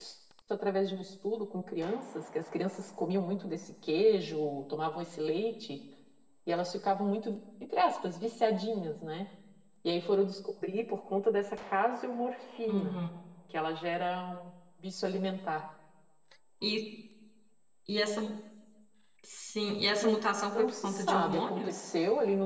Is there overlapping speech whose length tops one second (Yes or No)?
Yes